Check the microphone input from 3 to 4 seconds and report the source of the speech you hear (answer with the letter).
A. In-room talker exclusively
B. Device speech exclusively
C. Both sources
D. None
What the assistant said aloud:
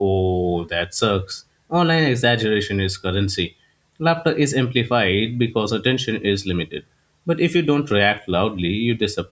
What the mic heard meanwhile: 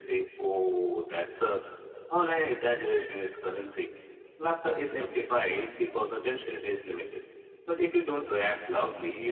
B